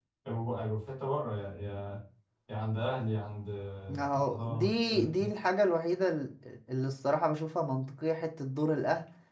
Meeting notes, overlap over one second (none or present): present